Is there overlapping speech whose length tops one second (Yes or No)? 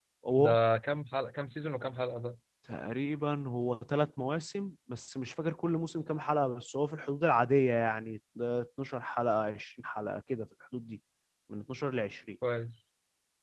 No